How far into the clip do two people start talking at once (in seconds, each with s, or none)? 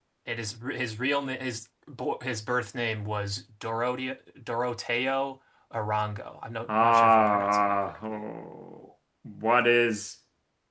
6.7 s